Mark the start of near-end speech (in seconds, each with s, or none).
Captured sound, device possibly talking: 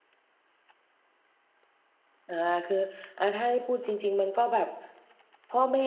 2.3 s